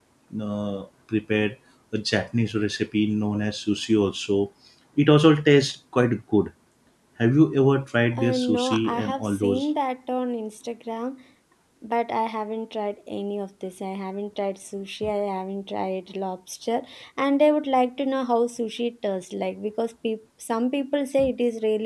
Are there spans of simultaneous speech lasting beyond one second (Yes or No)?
Yes